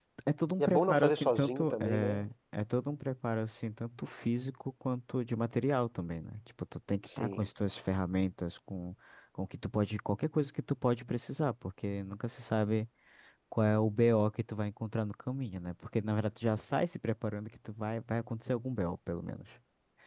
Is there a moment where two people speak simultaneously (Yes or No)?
Yes